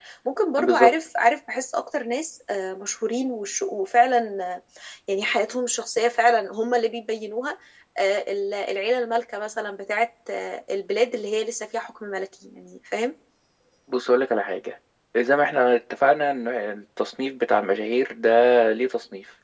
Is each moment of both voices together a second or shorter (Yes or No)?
Yes